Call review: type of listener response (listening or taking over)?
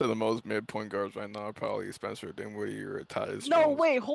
taking over